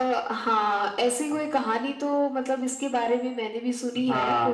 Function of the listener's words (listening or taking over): taking over